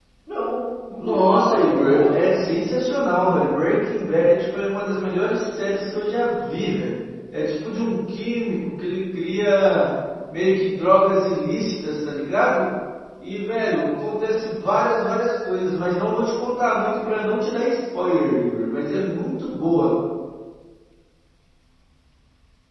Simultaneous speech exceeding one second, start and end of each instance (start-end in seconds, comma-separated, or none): 1.0-2.2